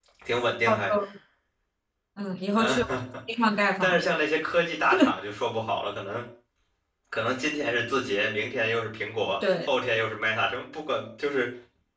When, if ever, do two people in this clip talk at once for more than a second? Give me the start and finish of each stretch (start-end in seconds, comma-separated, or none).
none